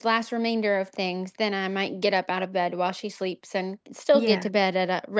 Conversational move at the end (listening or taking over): listening